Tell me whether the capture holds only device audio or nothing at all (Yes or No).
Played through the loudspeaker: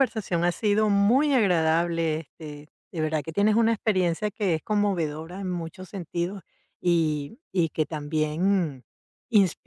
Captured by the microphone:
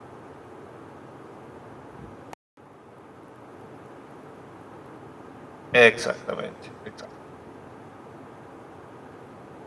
No